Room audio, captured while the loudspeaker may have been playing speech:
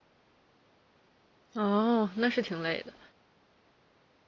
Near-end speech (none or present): present